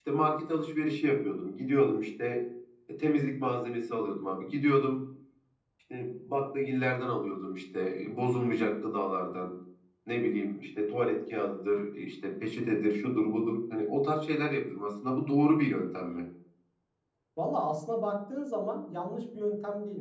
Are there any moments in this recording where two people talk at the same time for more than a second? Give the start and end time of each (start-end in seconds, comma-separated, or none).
none